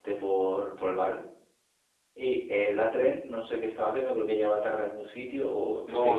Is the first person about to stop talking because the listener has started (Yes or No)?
Yes